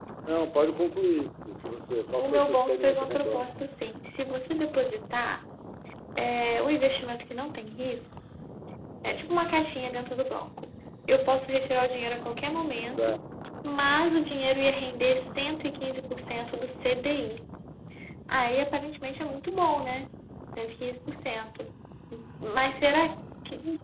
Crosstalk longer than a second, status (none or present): present